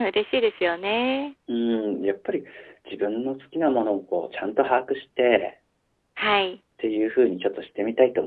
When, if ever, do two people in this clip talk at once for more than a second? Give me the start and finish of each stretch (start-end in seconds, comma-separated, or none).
none